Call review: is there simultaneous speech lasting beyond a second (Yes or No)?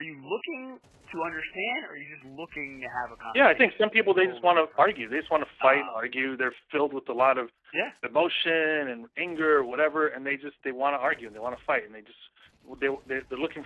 Yes